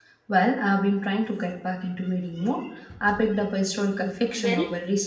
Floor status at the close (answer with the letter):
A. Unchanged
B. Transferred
A